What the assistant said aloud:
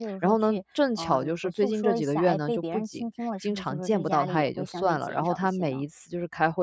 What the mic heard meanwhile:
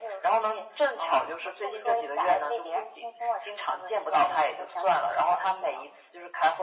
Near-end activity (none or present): none